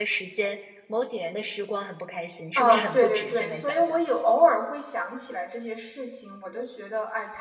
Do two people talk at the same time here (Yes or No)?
Yes